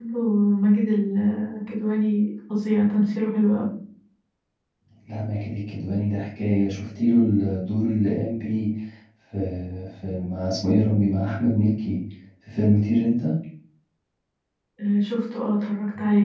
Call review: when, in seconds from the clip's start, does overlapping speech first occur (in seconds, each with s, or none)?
none